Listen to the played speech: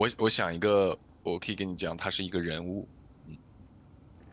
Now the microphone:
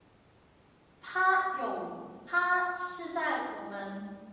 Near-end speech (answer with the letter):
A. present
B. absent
A